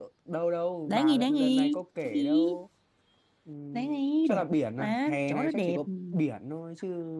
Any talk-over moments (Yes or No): Yes